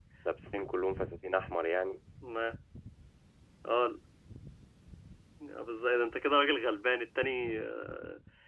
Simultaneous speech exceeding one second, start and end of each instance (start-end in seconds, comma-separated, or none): none